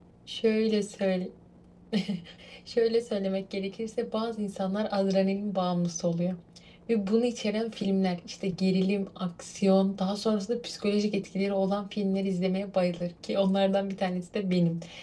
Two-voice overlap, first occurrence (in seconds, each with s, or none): none